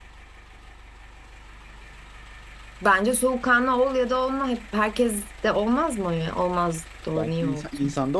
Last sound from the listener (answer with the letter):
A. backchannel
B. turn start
B